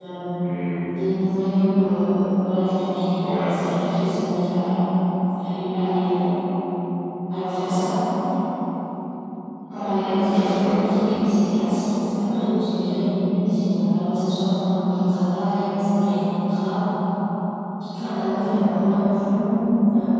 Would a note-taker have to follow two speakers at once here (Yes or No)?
Yes